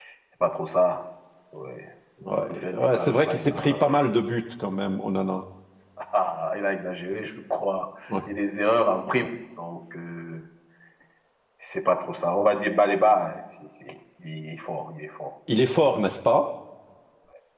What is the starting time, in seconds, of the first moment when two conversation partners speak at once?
2.5 s

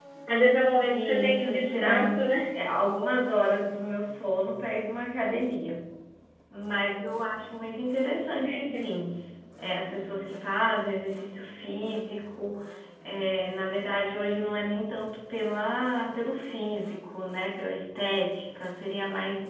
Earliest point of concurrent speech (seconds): 0.8 s

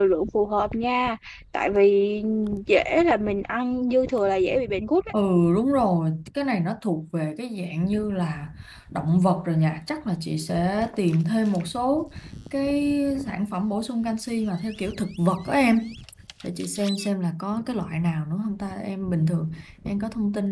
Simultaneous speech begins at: none

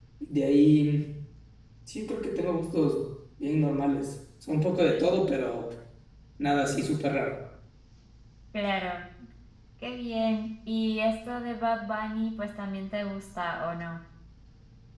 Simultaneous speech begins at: none

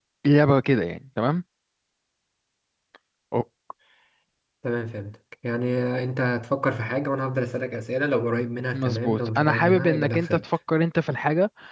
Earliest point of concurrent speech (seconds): 8.7 s

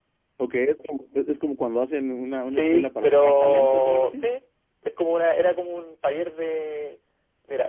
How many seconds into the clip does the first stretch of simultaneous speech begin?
2.4 s

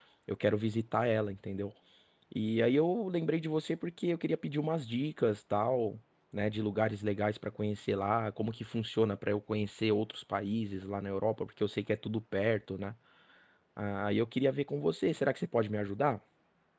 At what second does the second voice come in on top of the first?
none

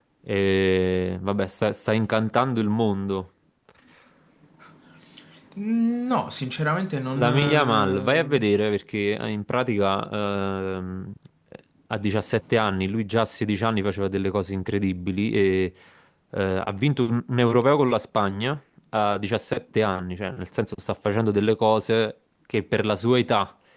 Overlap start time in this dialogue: 7.2 s

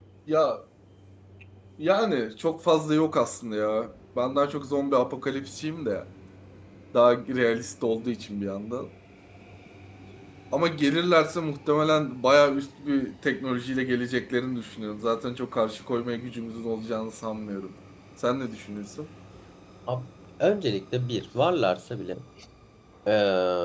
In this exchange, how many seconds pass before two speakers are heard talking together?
none

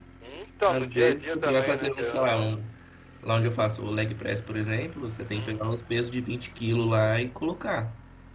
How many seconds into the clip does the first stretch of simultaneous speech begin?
0.7 s

